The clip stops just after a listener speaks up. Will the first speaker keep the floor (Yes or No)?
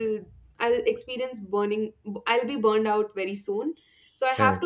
Yes